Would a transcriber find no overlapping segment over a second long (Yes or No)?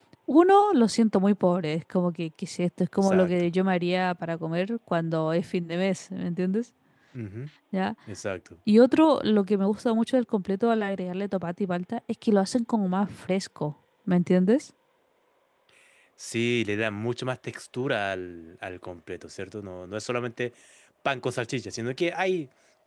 Yes